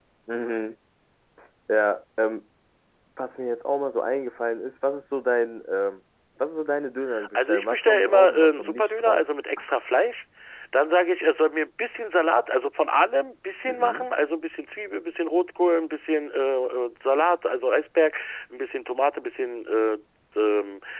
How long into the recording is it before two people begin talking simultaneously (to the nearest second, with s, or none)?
7 s